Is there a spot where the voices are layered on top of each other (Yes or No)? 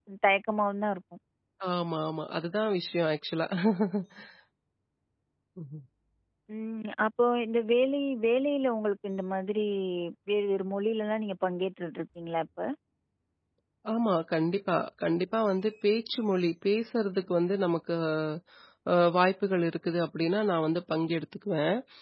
No